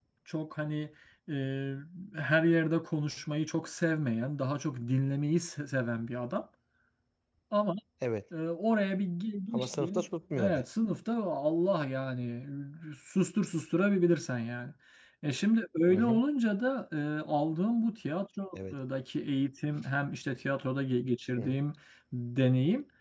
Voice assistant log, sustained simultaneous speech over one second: none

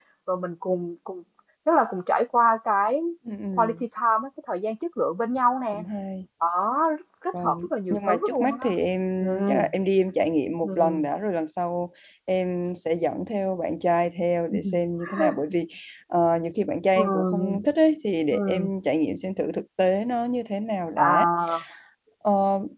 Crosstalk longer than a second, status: present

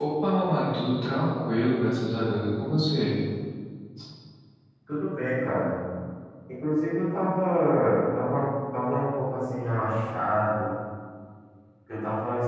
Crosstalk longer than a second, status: none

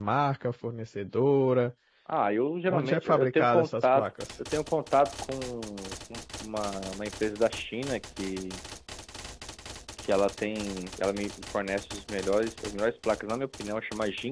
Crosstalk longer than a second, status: present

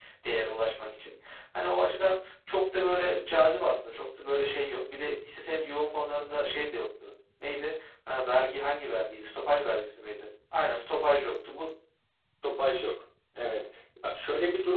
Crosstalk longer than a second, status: none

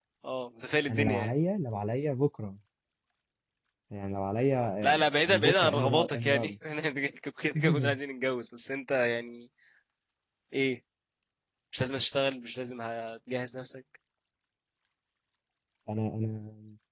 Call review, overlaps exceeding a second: present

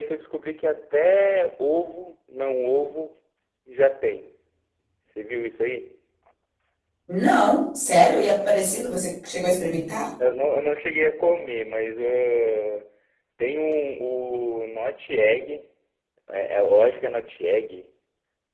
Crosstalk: none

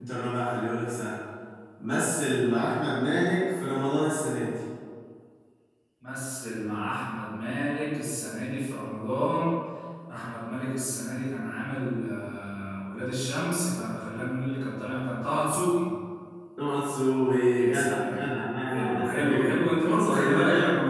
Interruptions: present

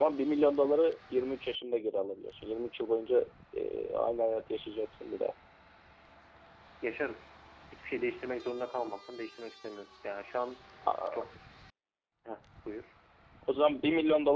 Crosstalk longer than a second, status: none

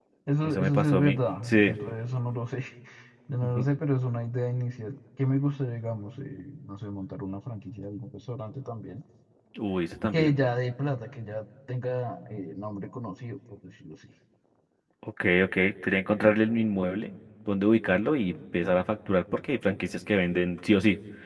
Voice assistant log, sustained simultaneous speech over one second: present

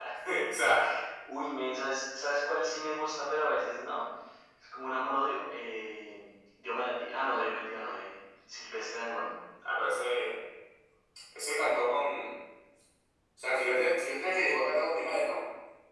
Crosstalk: none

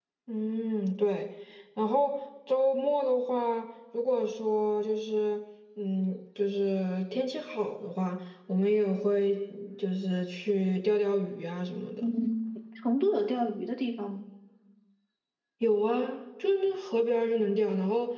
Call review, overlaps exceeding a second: none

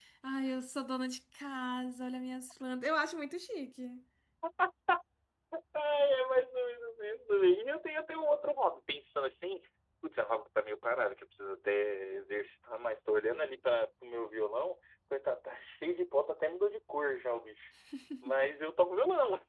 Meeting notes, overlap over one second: none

